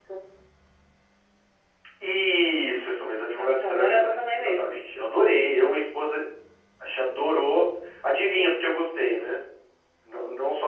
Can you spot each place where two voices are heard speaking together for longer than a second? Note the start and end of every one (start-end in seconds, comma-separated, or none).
3.4-4.8